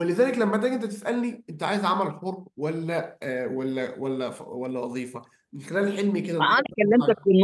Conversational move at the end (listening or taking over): taking over